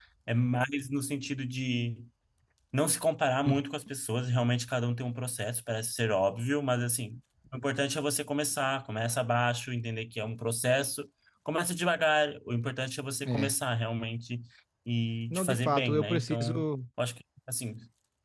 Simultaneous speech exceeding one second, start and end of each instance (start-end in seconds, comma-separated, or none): 15.3-16.6